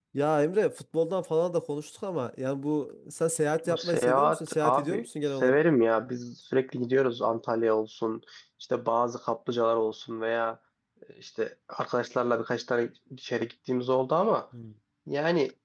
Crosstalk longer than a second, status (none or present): present